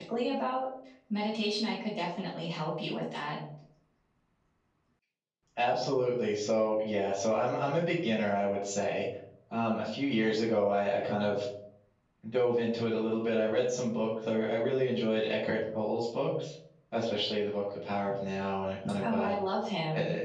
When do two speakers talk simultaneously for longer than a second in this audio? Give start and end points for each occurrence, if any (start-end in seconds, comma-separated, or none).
none